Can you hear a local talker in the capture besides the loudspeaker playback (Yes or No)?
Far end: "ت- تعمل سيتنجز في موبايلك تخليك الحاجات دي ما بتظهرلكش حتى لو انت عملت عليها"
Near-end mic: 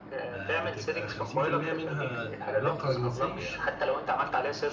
Yes